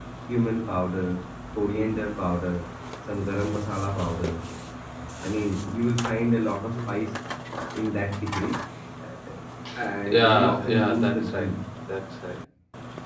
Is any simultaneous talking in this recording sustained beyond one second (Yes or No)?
Yes